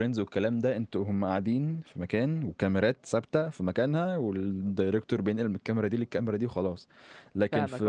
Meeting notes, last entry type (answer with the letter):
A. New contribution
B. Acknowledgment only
B